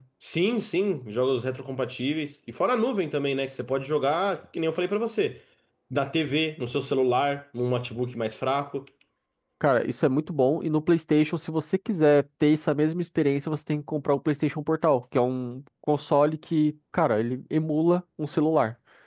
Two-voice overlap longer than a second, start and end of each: none

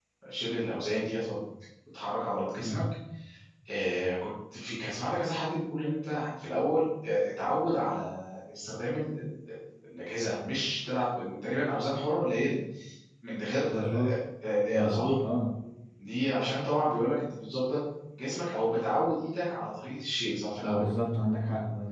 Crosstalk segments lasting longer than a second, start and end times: none

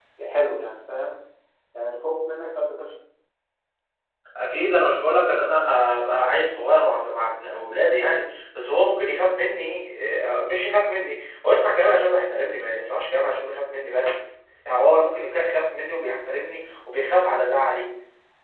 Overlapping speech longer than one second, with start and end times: none

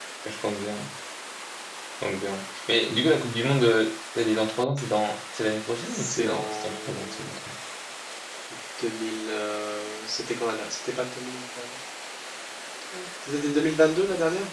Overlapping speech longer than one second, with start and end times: 5.9-7.3

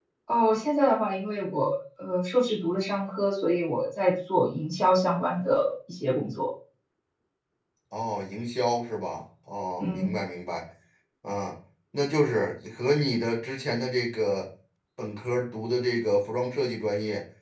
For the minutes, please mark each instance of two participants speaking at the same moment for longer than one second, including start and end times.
none

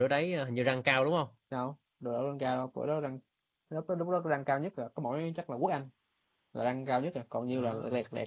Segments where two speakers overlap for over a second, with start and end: none

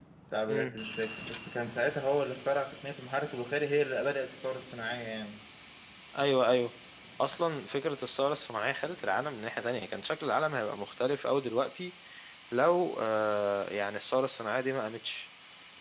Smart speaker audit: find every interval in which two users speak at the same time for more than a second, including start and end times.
none

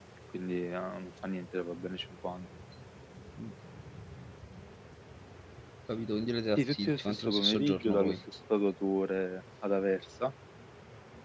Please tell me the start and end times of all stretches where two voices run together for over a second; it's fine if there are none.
6.6-8.2

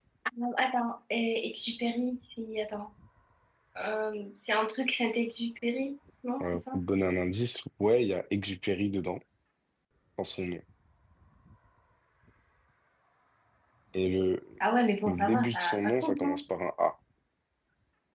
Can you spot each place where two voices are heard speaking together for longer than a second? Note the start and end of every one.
15.1-16.4

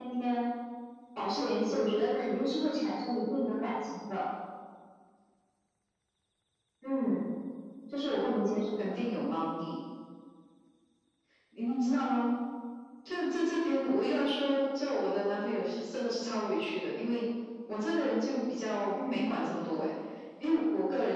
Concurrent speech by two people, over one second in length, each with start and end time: none

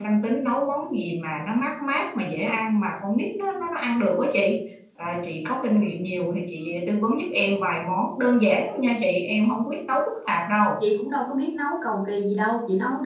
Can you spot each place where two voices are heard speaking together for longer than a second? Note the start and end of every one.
none

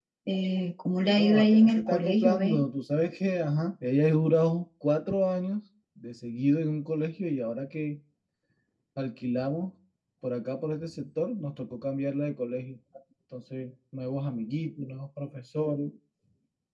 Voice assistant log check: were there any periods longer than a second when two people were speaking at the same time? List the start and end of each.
1.0-2.6

